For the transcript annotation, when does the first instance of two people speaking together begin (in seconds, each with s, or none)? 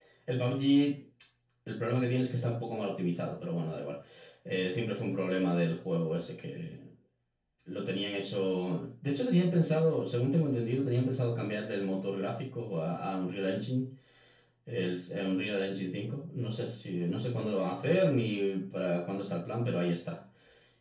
none